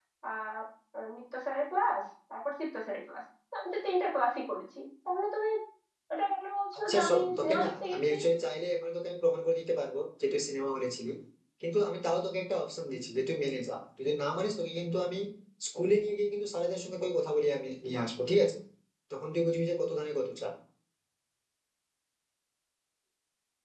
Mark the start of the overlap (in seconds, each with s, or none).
6.9 s